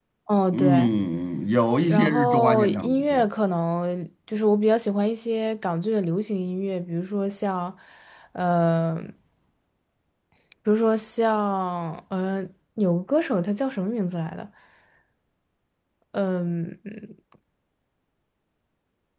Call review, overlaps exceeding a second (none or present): present